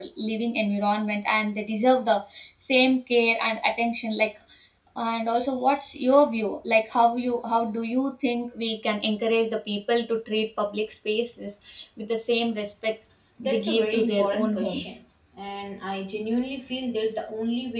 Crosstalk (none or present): present